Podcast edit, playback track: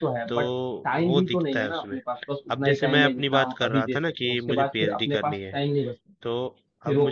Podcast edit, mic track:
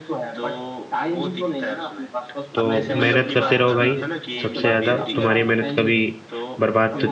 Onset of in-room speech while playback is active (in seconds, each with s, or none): 2.5 s